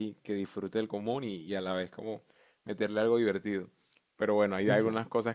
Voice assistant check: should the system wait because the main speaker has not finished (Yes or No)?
Yes